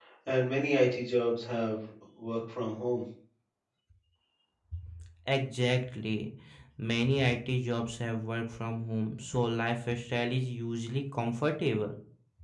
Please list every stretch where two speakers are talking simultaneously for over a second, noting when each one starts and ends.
none

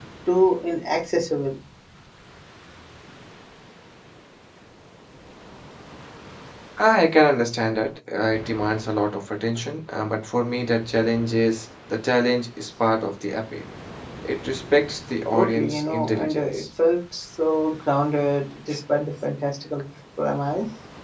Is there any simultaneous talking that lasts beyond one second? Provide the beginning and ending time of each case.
15.3-16.6

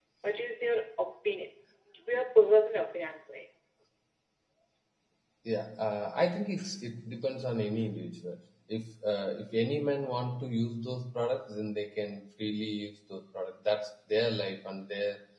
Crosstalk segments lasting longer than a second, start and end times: none

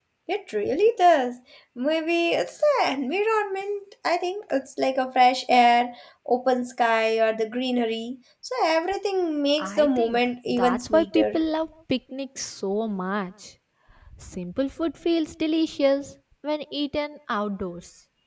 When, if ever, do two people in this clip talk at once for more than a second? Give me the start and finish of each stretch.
9.6-11.4

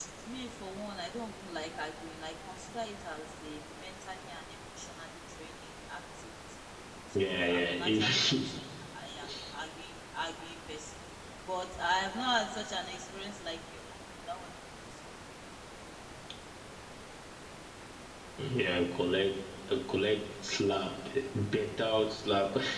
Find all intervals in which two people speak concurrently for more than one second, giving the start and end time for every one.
7.2-8.6

